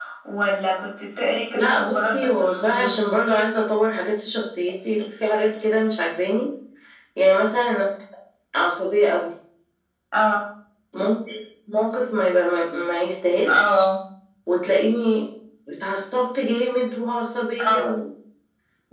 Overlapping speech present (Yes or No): Yes